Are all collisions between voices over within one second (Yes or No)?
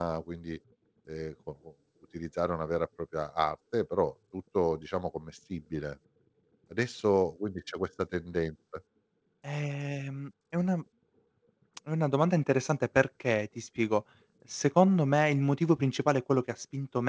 Yes